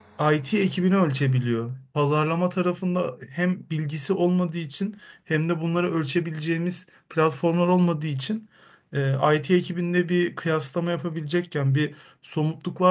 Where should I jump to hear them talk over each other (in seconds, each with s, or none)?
none